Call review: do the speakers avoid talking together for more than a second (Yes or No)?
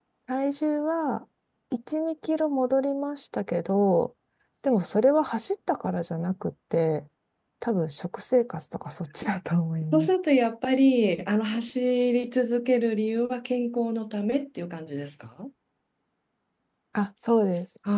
Yes